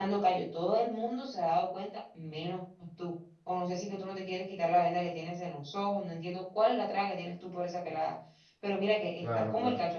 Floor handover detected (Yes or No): No